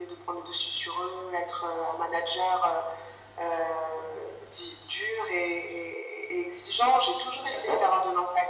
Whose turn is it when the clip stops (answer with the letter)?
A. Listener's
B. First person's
B